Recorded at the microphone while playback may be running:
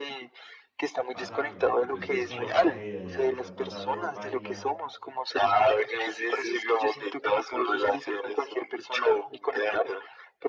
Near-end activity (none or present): present